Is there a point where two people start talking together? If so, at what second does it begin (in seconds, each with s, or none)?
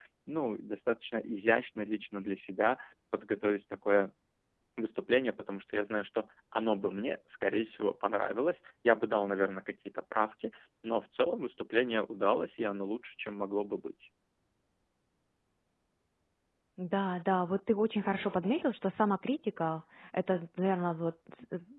none